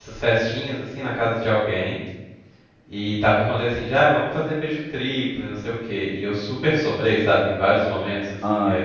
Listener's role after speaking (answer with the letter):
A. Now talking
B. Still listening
B